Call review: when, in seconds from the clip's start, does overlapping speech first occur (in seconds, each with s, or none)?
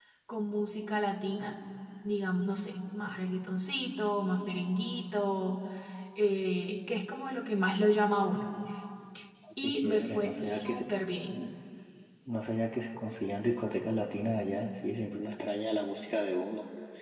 9.6 s